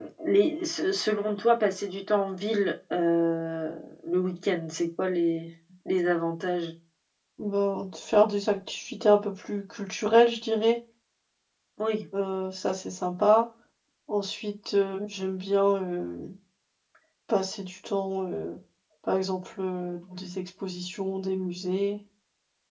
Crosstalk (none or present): none